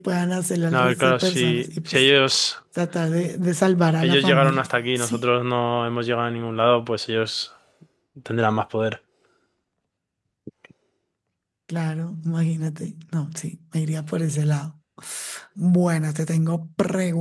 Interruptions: present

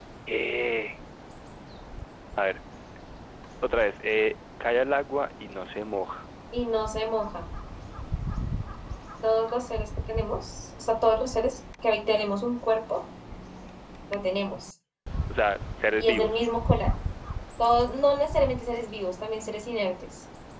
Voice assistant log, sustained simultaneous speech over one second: none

